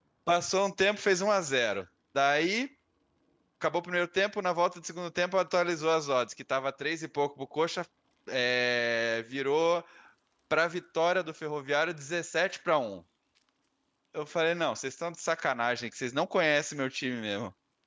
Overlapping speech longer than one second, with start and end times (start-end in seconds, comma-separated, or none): none